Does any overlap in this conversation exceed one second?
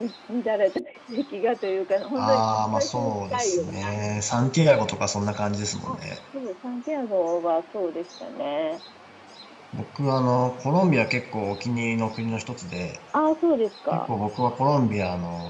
Yes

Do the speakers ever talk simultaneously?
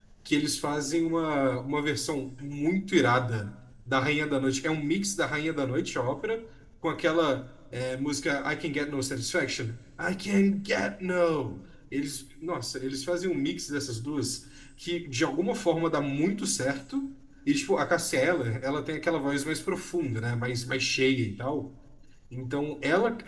No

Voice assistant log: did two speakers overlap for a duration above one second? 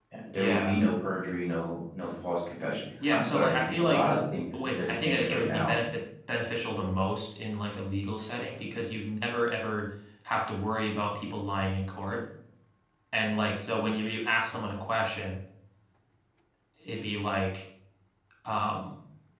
Yes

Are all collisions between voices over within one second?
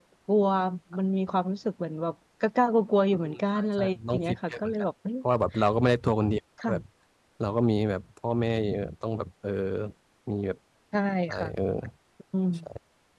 No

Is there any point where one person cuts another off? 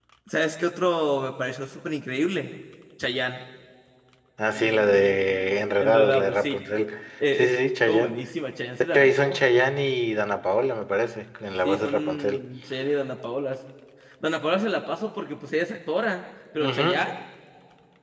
Yes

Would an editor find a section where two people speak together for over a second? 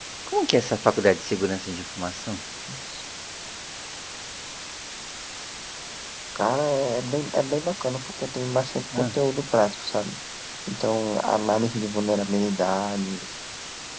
No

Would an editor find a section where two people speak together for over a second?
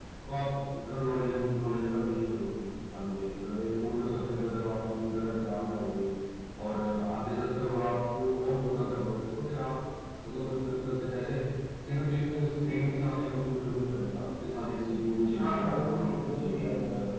Yes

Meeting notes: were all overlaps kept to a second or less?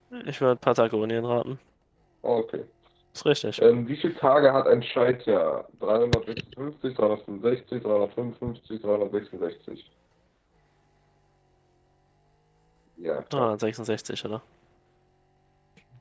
Yes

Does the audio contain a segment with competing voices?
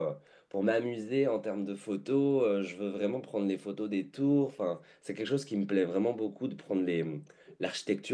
No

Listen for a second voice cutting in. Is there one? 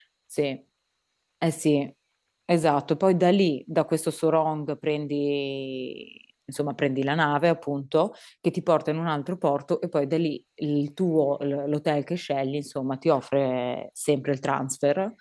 No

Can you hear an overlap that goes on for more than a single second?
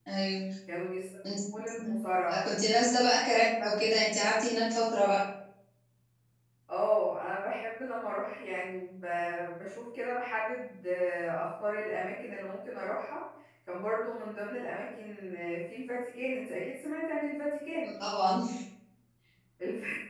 No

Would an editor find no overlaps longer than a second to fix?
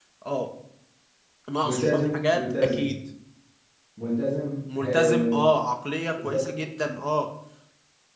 No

